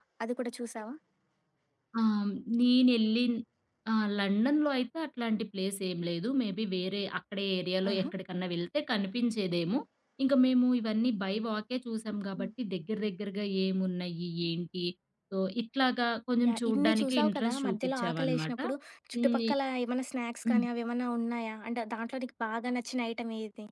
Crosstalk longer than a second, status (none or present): present